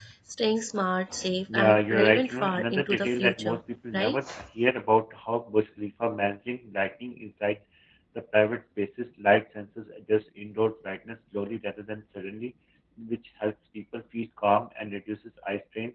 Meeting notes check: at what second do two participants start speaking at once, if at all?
1.5 s

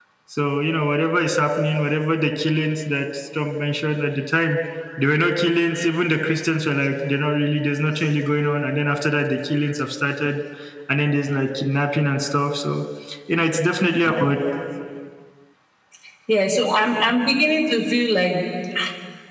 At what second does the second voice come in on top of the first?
none

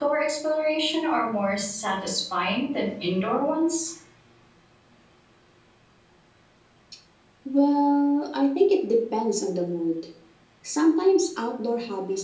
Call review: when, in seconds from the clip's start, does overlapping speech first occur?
none

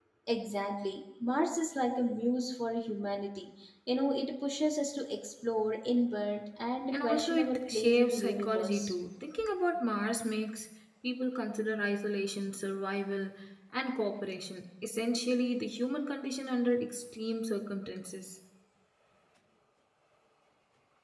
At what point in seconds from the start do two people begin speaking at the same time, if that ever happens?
6.9 s

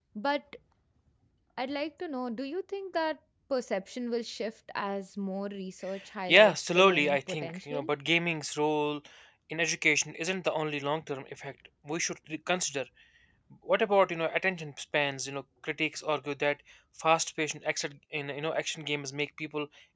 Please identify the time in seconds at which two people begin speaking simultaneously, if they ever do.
6.3 s

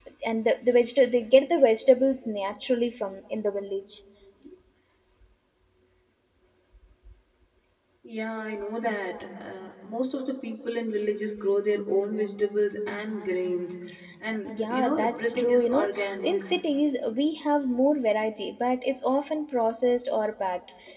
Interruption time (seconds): 14.7 s

